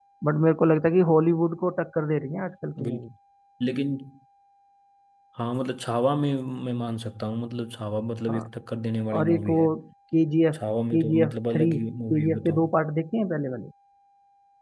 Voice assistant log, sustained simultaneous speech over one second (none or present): present